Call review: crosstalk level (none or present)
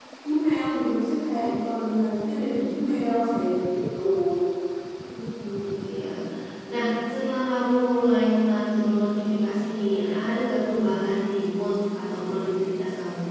none